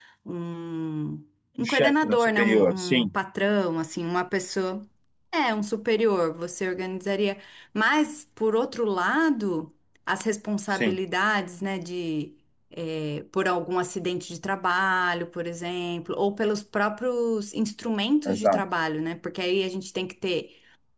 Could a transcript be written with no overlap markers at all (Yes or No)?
No